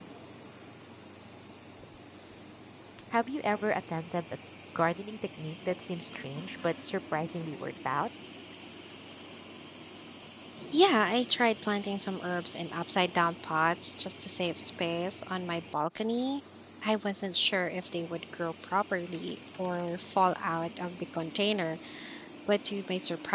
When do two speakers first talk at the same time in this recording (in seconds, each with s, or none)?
none